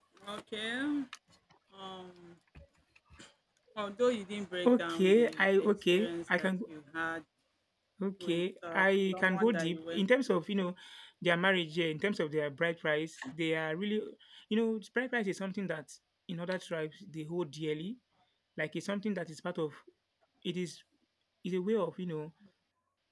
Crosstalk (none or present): present